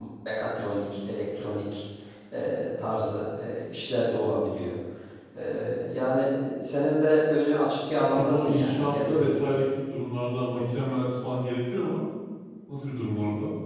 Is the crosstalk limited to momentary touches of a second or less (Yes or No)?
No